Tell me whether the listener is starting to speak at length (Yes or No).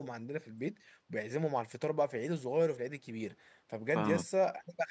No